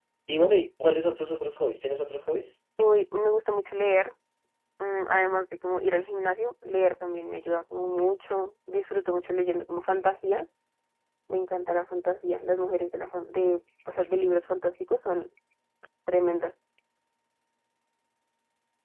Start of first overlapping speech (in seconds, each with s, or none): none